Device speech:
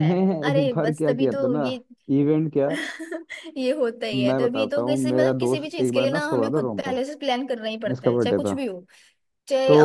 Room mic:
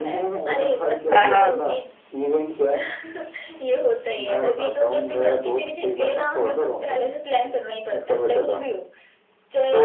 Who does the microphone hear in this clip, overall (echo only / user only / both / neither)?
both